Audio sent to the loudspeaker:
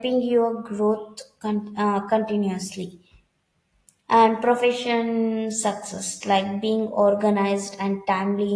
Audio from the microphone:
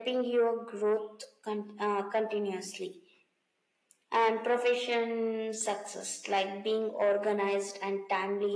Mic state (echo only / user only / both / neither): echo only